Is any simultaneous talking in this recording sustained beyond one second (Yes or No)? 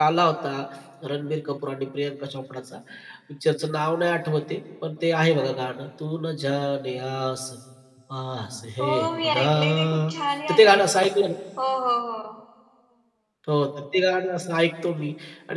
Yes